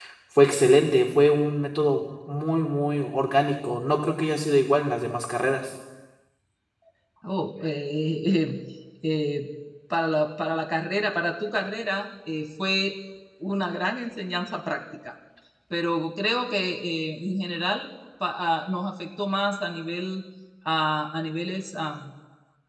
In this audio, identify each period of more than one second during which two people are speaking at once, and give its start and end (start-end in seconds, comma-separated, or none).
none